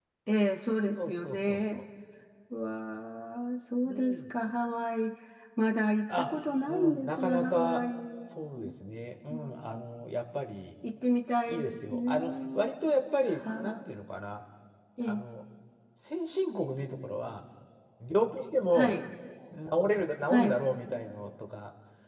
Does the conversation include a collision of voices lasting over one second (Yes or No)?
Yes